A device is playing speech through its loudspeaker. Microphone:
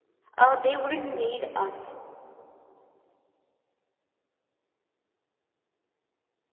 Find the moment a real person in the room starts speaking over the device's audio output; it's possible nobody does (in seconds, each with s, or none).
0.4 s